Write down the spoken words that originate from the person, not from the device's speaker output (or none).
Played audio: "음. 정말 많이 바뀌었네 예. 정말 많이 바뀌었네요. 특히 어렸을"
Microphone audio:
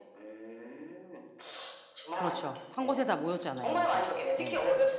그렇죠. 한 곳에 다 모였잖아요, 이제. 예.